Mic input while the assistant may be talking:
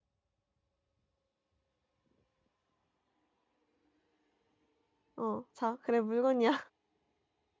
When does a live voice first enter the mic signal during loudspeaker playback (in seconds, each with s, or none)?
5.2 s